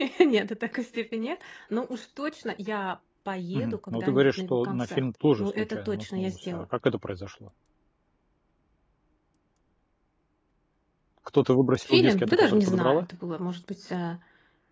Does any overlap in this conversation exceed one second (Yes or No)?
Yes